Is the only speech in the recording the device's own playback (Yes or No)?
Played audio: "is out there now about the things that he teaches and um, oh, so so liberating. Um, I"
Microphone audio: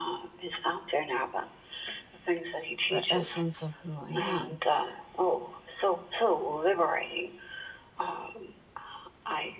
No